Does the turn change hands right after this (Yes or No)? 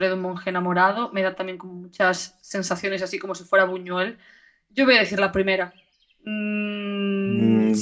Yes